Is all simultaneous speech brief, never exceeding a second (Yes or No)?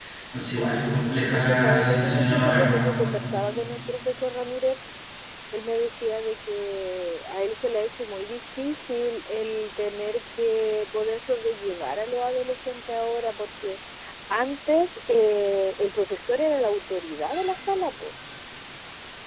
No